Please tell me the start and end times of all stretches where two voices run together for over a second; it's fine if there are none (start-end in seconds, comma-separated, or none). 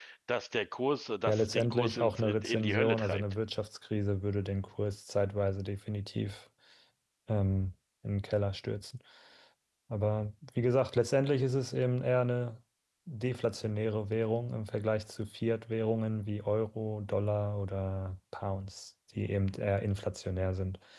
1.3-3.2